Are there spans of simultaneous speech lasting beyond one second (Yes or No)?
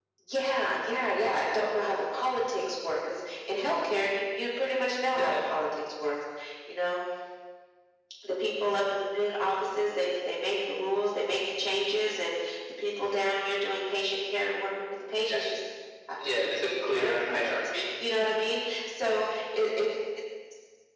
Yes